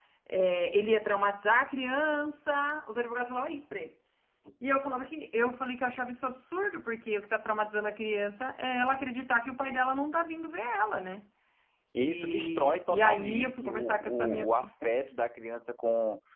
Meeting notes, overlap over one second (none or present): present